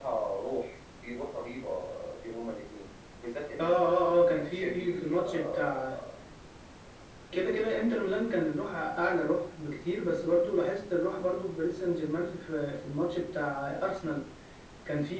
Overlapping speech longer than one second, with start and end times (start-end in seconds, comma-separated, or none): 3.6-6.0